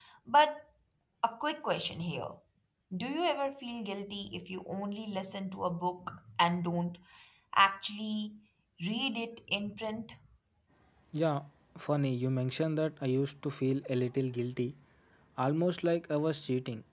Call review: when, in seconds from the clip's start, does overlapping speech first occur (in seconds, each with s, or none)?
none